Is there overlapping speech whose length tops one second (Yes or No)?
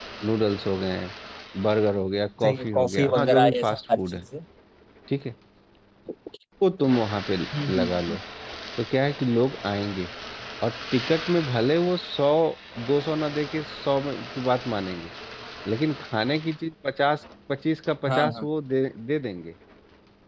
Yes